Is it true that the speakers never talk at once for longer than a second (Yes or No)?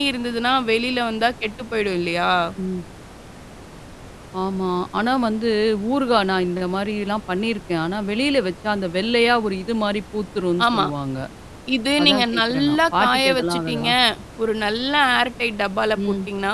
No